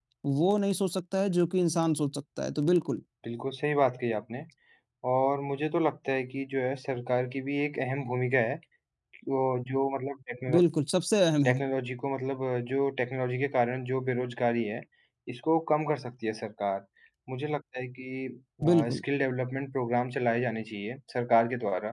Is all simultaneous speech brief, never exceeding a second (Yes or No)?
Yes